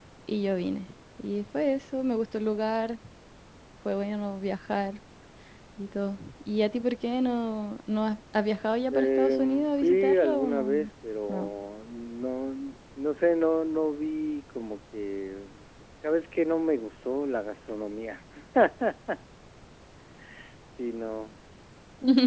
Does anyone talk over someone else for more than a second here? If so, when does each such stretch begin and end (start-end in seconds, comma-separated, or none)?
8.9-10.8